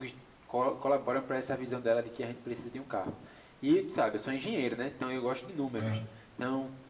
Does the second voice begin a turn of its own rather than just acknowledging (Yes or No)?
No